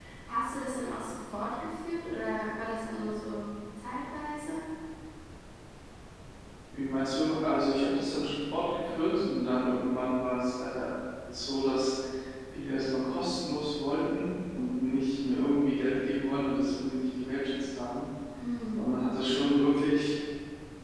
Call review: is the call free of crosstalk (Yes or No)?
Yes